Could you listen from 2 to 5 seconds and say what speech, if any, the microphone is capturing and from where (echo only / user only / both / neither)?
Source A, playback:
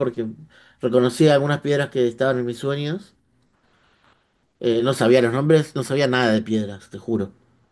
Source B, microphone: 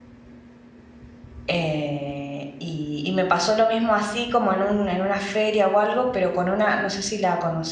user only